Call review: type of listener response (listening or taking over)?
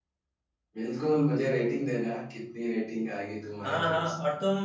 taking over